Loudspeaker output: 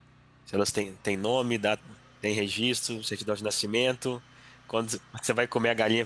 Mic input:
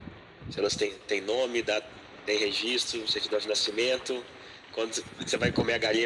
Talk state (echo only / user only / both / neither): echo only